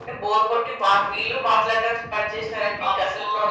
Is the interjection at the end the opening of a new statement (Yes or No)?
Yes